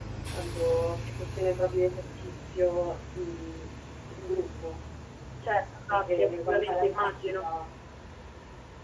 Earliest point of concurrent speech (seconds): 5.9 s

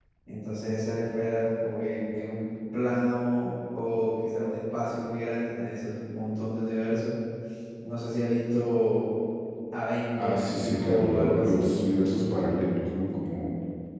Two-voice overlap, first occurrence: 10.2 s

